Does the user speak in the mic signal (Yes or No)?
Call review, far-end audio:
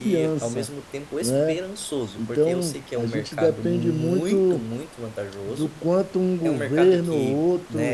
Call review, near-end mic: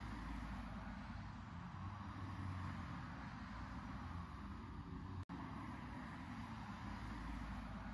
No